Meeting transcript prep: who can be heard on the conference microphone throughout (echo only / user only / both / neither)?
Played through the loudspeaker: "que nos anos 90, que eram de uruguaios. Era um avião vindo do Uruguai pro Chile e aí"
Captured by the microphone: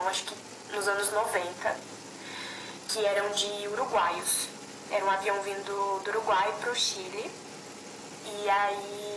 echo only